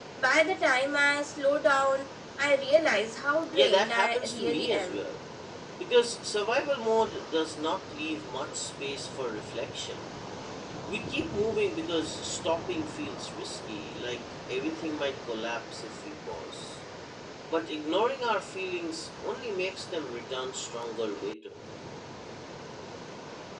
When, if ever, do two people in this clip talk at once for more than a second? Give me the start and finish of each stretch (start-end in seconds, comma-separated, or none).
3.5-4.9